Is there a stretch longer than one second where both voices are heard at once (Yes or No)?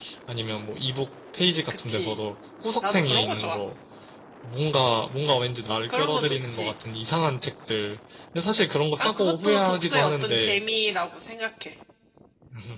Yes